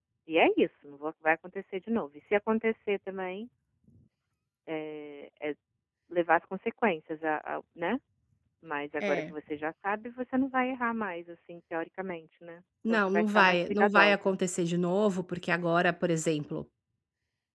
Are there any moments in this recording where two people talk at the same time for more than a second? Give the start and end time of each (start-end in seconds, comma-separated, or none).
12.9-14.3